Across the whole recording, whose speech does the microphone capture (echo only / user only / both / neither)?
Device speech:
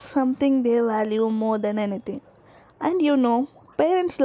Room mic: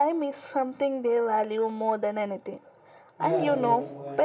both